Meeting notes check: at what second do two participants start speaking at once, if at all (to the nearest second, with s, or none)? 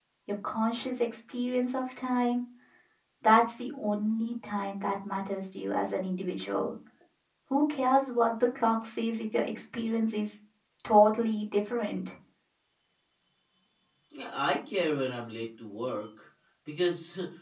none